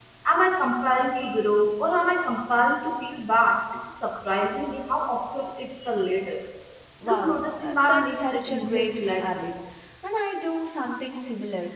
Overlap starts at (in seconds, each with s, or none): 7.1 s